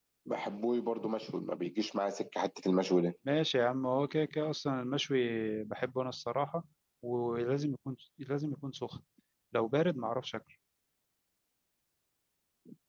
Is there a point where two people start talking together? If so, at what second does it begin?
none

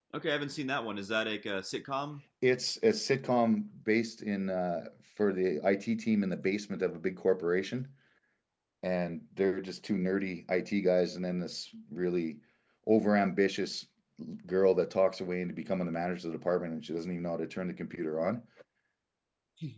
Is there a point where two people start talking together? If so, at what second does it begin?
none

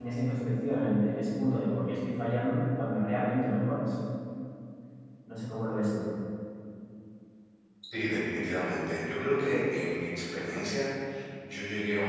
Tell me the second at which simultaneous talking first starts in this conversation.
none

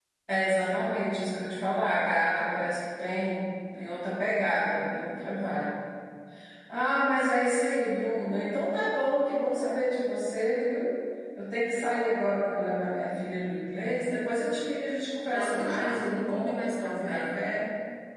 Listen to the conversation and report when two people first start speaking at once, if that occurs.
15.3 s

